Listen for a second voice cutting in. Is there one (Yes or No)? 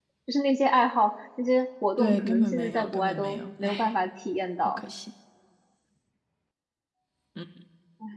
Yes